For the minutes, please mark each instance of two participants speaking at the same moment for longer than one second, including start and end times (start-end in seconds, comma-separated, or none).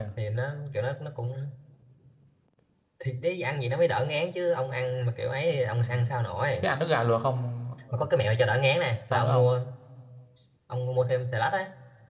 none